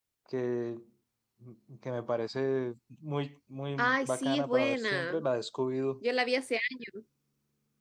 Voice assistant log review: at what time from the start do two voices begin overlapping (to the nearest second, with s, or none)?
4 s